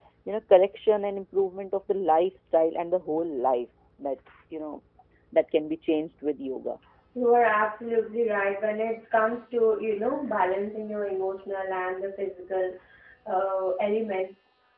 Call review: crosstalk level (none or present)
none